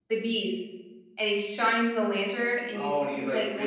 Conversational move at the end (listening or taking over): taking over